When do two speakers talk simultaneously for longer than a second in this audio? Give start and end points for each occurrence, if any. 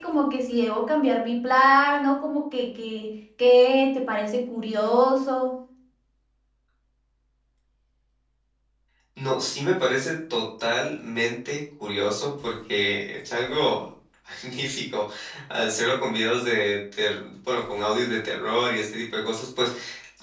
none

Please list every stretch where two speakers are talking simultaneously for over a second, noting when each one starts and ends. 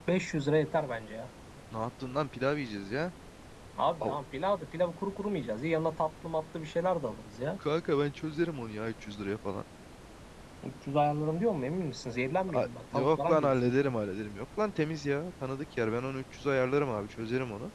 12.5-13.9

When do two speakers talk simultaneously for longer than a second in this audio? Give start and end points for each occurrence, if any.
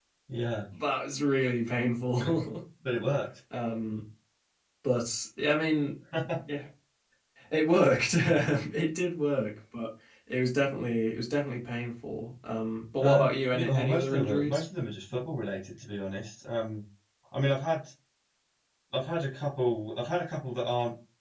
13.0-14.6

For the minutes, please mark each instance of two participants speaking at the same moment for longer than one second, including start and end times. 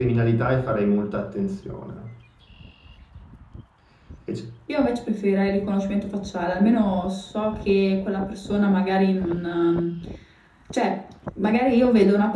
none

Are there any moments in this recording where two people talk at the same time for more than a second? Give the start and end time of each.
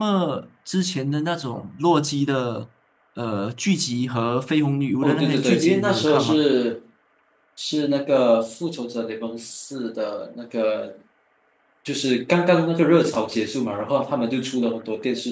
5.0-6.4

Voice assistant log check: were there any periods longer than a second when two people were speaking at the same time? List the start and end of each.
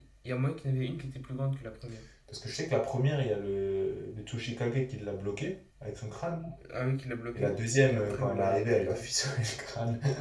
7.3-9.1

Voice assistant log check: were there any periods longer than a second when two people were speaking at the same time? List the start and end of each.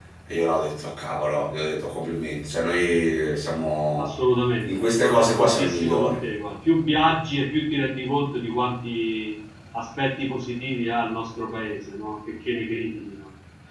4.6-6.1

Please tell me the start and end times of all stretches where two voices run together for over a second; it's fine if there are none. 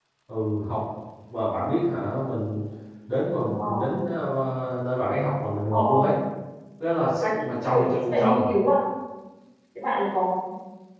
7.2-8.5

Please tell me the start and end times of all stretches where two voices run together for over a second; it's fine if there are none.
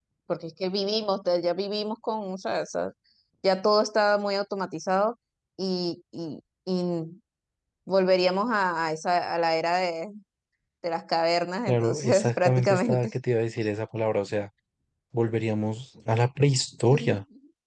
11.7-13.1

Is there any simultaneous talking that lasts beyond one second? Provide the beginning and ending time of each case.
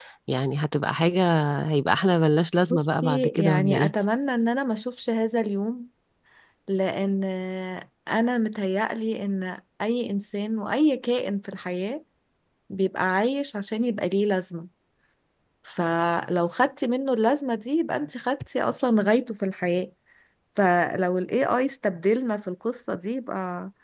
2.7-3.9

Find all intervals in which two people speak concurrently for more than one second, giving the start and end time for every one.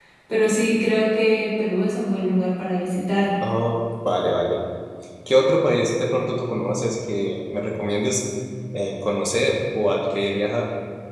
none

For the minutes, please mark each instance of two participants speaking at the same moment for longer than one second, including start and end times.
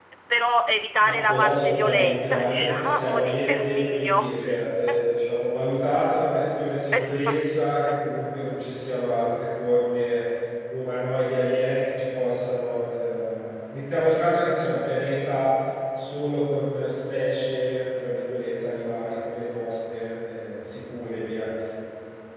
1.0-4.4

